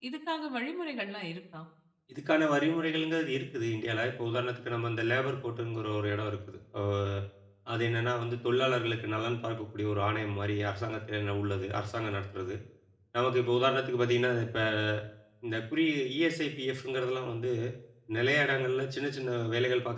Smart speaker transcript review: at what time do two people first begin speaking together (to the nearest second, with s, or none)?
none